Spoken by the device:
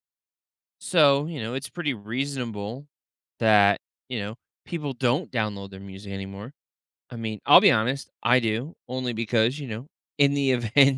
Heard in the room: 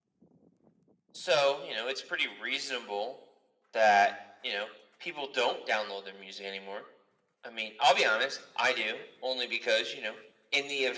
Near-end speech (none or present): none